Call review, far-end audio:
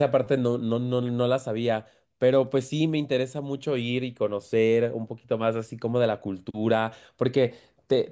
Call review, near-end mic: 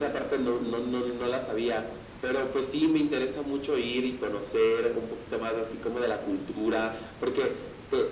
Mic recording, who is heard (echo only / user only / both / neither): echo only